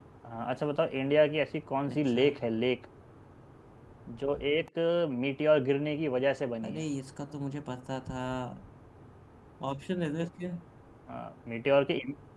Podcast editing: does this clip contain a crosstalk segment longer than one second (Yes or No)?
No